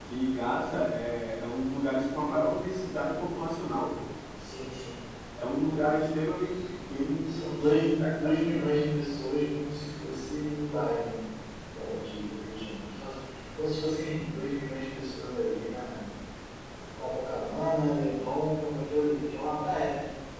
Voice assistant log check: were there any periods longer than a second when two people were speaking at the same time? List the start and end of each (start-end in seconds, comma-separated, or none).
7.3-8.6